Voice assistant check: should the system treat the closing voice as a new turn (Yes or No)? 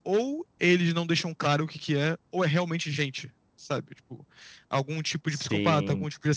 No